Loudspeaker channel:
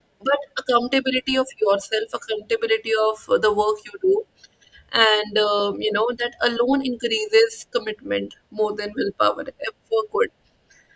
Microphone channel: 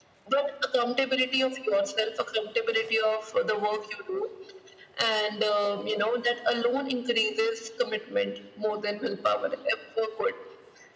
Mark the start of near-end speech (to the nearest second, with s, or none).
none